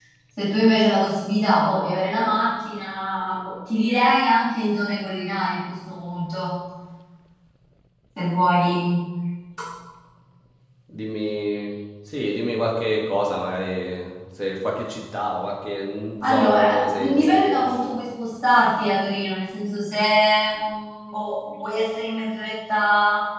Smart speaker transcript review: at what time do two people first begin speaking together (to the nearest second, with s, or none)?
16 s